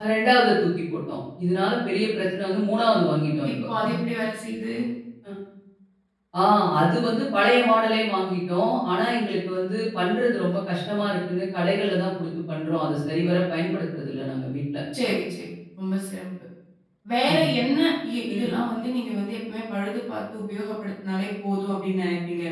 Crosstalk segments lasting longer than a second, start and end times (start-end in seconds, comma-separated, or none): none